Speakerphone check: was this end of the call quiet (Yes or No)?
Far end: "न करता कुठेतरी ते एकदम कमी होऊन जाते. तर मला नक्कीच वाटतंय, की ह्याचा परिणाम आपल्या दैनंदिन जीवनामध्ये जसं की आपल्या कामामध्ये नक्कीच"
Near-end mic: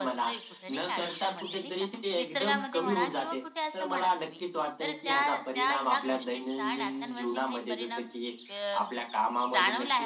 No